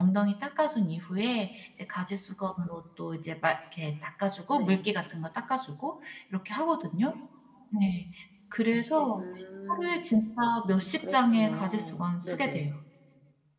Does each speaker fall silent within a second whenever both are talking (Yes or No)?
No